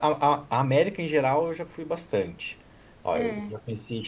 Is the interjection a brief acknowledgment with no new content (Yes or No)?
Yes